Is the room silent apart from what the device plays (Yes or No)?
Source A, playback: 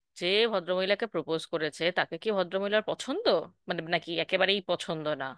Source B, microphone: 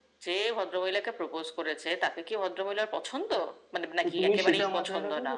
No